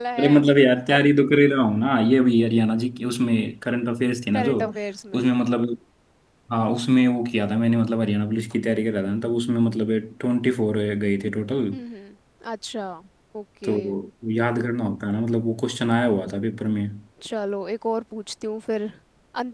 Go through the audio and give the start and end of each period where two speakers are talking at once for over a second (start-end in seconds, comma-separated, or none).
none